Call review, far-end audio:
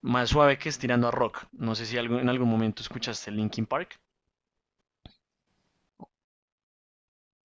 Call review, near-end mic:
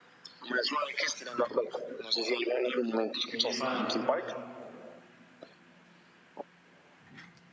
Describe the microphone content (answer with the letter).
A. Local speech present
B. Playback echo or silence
A